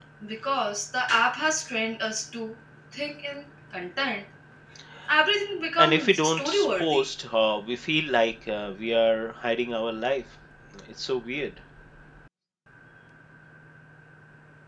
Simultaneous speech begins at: 6 s

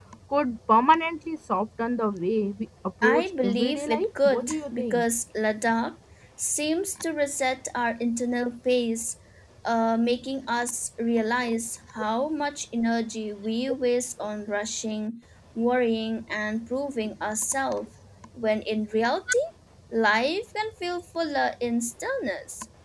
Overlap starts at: 3 s

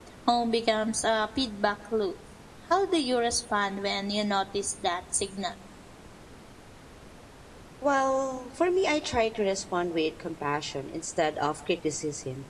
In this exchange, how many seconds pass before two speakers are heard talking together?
none

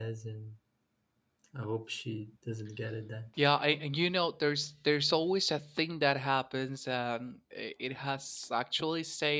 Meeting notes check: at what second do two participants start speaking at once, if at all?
none

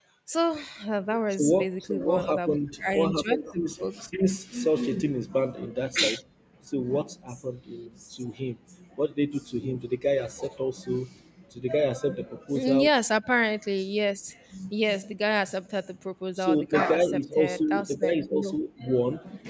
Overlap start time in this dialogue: 1 s

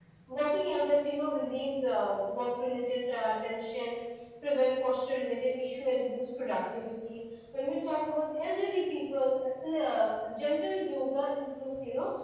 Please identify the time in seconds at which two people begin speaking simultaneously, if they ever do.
none

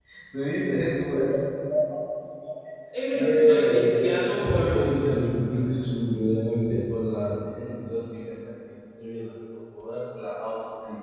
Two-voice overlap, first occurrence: 3 s

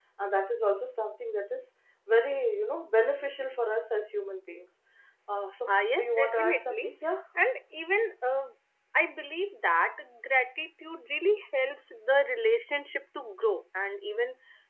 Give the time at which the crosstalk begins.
6 s

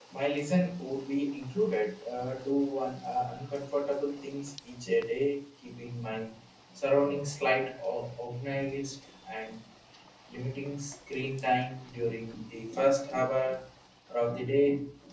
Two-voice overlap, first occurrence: none

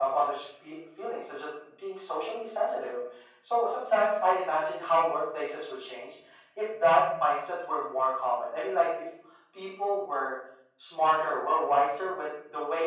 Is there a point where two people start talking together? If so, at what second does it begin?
none

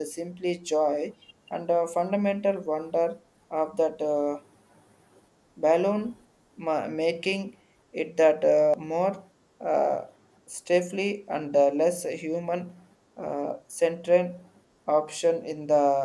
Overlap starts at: none

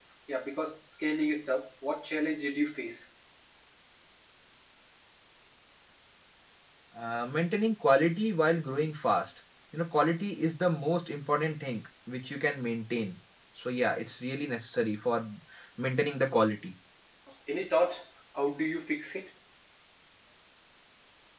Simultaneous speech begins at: none

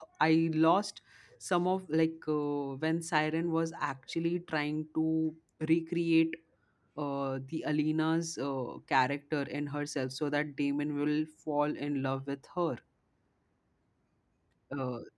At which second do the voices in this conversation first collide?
none

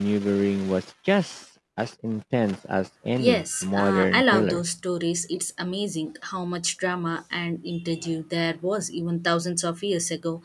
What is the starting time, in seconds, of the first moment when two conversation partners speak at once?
3 s

